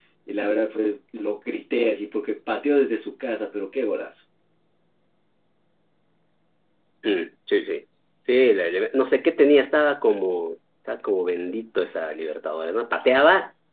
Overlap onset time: none

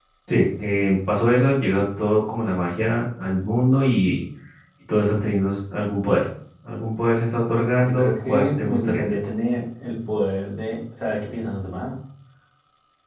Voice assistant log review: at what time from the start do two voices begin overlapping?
7.8 s

